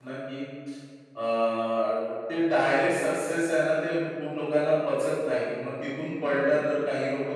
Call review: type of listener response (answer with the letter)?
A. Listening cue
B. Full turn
A